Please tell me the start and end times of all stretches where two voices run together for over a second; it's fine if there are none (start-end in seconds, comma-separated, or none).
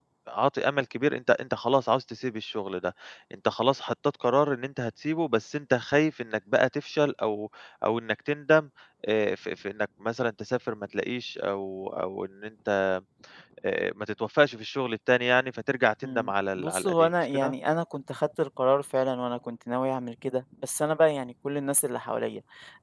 16.0-17.5